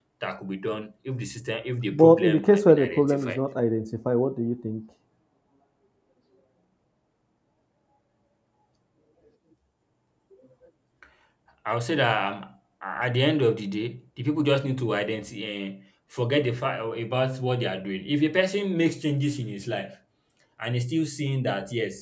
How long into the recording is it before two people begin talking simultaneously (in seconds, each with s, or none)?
1.9 s